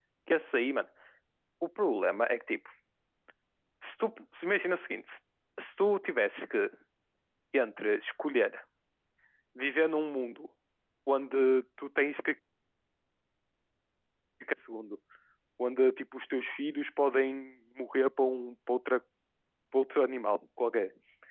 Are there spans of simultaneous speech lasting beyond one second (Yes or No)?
No